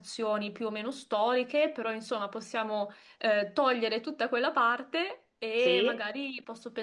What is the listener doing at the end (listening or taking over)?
listening